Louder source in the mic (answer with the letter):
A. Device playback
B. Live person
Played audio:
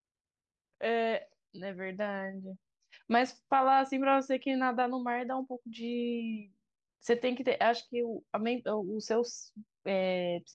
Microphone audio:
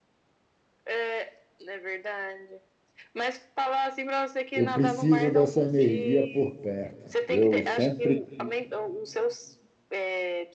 B